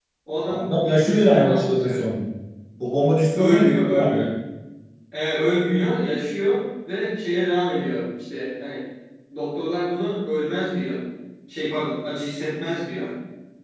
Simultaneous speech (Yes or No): Yes